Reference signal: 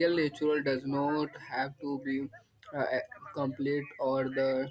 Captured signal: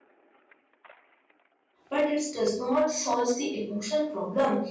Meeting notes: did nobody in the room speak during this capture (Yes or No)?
No